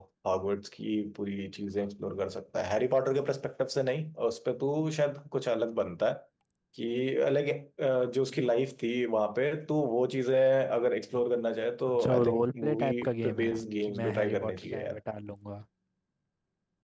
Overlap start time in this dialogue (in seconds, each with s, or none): 11.9 s